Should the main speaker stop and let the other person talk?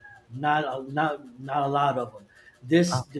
No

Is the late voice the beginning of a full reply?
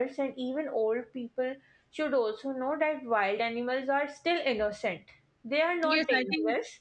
Yes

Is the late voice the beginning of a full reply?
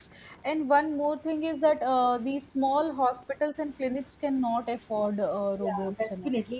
Yes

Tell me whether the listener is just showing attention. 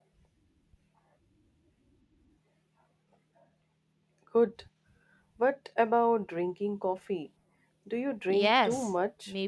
No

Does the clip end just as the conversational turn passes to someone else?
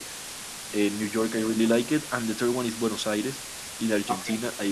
No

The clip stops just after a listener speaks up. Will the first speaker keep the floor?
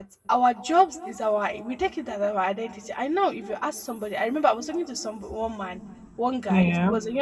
Yes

